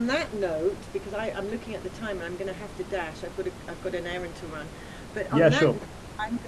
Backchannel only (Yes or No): Yes